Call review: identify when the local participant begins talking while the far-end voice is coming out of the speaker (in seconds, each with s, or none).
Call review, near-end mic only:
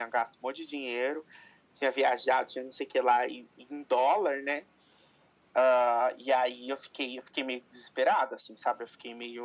none